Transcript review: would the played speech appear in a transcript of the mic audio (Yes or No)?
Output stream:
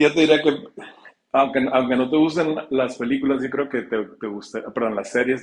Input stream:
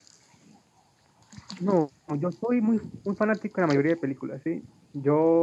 No